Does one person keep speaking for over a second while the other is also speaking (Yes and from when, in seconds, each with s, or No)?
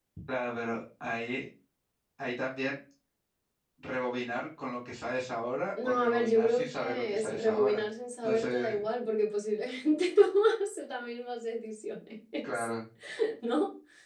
Yes, from 5.8 s